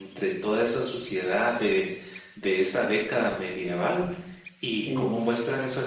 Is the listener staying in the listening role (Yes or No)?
Yes